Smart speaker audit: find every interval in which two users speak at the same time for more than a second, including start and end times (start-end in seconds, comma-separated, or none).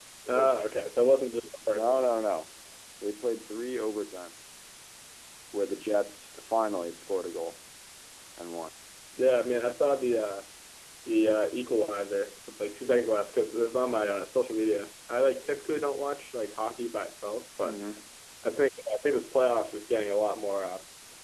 none